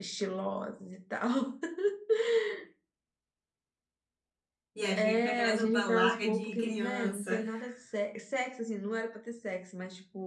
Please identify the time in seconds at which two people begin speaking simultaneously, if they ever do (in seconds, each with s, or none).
5.0 s